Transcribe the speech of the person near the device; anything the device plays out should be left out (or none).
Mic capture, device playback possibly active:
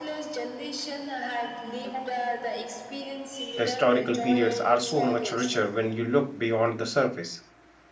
The historical periods are so much richer when you look beyond the surface.